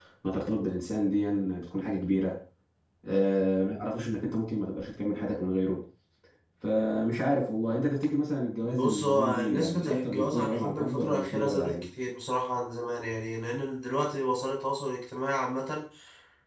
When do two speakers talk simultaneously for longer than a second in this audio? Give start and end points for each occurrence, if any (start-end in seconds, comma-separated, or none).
8.6-11.8